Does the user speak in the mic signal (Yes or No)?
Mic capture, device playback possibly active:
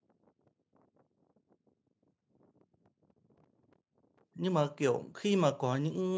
Yes